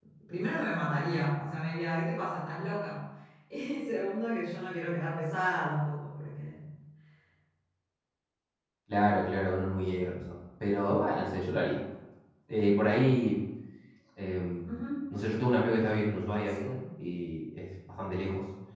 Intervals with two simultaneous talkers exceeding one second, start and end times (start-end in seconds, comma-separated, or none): none